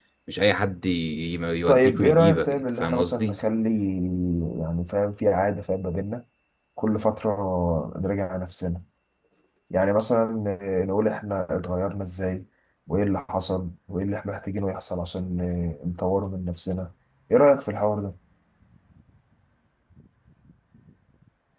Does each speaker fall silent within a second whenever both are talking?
No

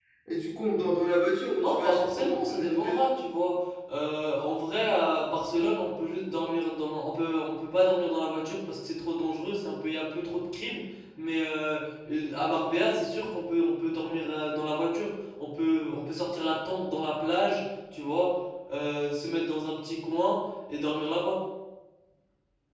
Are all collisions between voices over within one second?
No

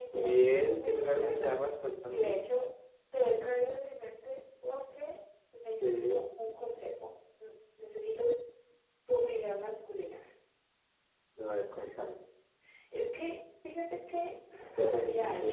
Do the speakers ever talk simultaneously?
Yes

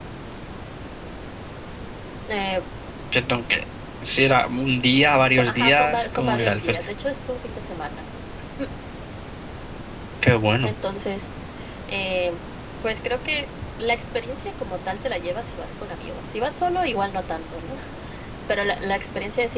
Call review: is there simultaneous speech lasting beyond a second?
Yes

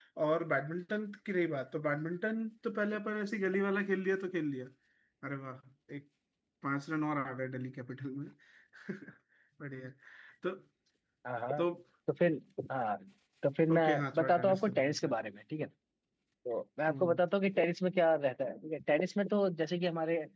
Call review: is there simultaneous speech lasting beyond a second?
Yes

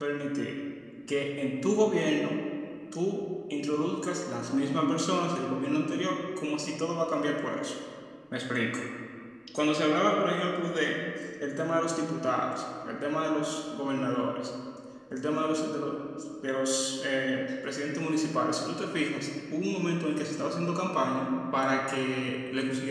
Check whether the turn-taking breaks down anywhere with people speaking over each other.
No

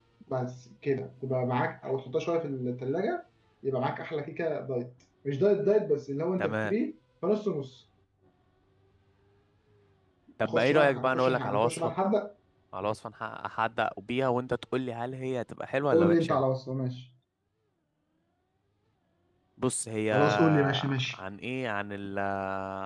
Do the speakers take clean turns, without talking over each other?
No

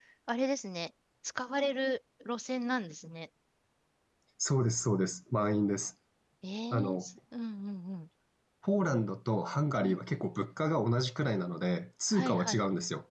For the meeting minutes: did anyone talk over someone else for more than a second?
No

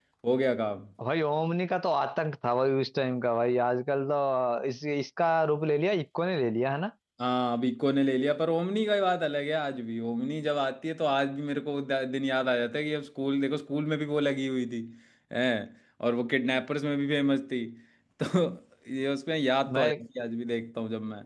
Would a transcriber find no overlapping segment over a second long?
Yes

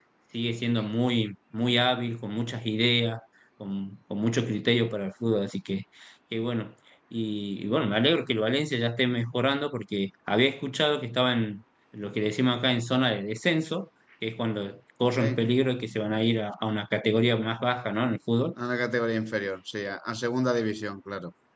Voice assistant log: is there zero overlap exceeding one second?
Yes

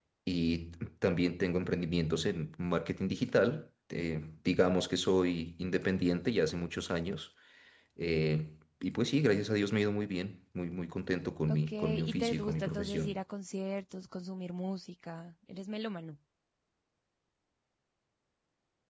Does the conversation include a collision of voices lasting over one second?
Yes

